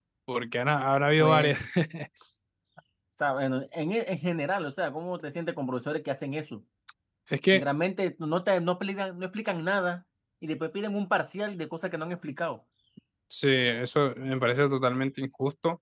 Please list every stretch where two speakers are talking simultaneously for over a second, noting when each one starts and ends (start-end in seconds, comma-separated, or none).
none